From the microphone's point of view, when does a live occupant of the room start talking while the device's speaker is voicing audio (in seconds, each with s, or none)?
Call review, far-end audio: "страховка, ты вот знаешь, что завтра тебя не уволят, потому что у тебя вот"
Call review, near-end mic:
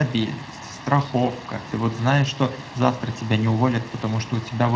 none